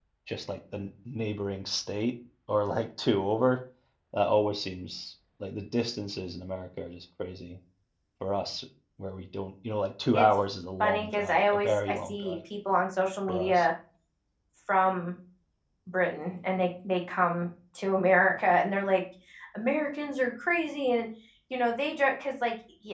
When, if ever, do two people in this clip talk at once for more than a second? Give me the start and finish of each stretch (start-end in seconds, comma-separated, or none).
10.8-12.3